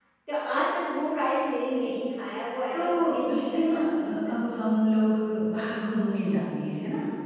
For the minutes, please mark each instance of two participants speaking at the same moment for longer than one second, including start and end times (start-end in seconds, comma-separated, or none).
2.7-4.4